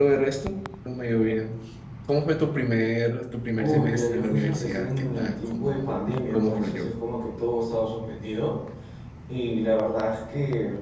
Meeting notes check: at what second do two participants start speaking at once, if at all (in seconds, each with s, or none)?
3.6 s